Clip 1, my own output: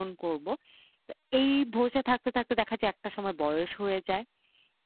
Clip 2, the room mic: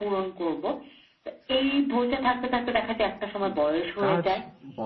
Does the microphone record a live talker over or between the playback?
Yes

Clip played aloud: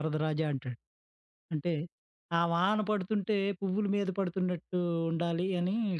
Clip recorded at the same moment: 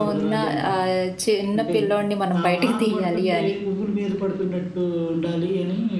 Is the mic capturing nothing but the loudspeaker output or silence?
No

